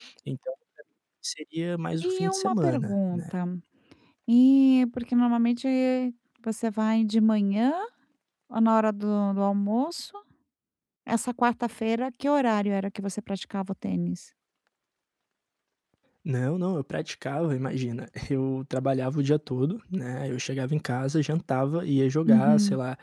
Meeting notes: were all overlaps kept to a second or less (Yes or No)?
No